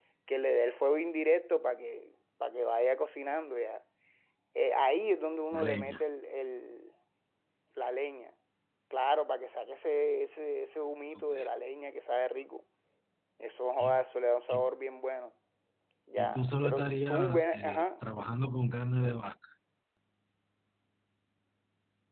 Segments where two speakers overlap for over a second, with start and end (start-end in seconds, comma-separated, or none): 16.2-18.0